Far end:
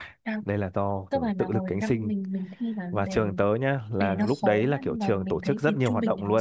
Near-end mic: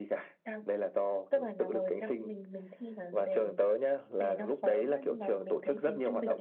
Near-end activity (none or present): none